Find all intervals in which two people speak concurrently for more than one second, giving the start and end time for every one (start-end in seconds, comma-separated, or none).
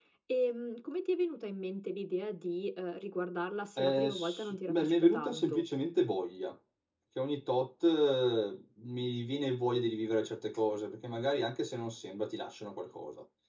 3.8-5.6